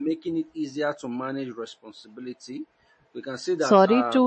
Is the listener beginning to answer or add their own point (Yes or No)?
Yes